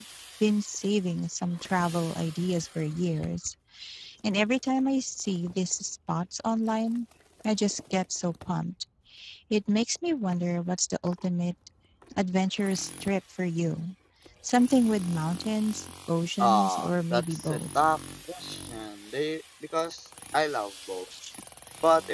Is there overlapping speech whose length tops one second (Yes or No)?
Yes